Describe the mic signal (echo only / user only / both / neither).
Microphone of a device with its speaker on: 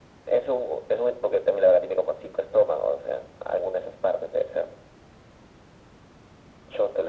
echo only